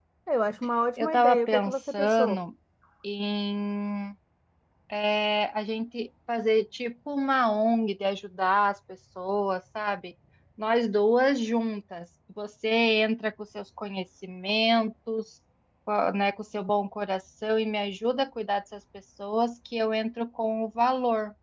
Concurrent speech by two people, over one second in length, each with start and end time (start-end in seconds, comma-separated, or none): 1.0-2.4